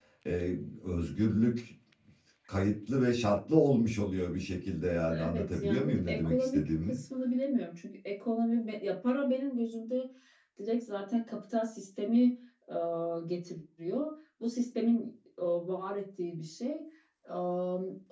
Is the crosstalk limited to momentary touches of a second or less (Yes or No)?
No